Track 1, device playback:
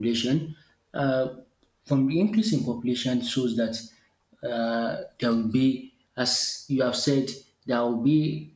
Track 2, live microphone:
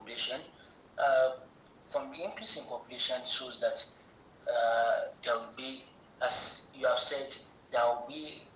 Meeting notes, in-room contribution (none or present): none